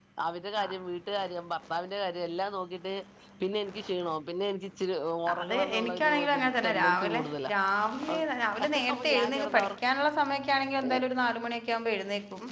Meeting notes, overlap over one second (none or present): present